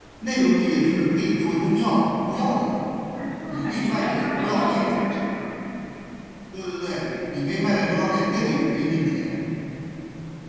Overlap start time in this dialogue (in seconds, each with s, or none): 3.5 s